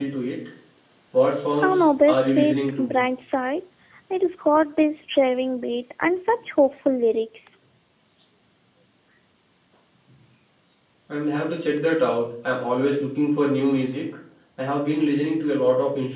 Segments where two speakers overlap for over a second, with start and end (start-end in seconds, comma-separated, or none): 1.6-2.9